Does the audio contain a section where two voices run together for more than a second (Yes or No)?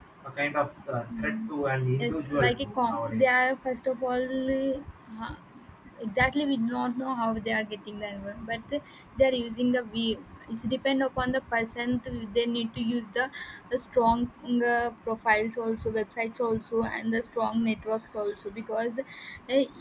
Yes